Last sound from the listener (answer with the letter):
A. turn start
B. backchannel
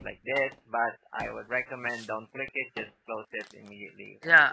A